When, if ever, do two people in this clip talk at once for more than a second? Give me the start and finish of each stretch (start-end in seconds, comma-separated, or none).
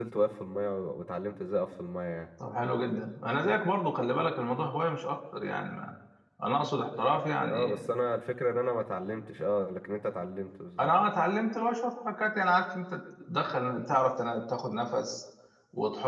none